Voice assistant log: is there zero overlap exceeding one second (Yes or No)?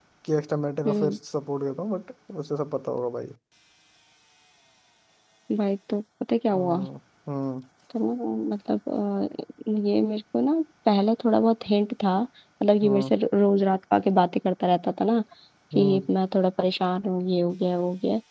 Yes